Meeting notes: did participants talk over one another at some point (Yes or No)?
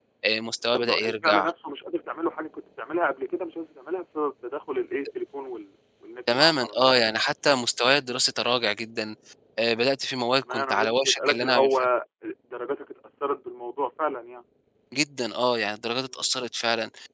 Yes